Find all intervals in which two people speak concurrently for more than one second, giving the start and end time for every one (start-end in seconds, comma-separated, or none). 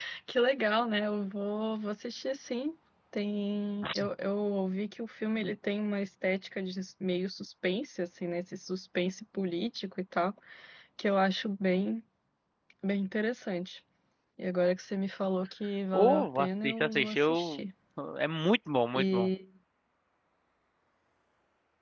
15.9-17.6